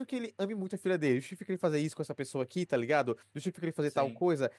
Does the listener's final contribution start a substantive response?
No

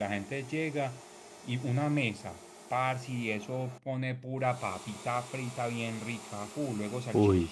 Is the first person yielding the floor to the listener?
No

